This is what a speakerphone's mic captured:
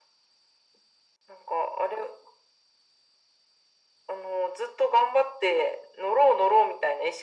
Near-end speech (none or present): none